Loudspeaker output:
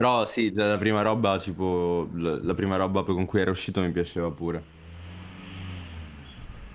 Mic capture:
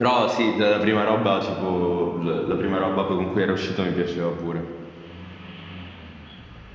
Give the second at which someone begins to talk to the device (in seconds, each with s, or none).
none